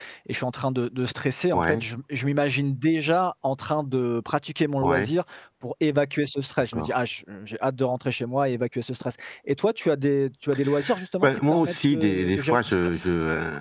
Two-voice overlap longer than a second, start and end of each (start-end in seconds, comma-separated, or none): 11.2-13.0